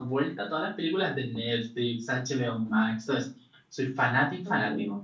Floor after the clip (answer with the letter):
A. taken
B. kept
A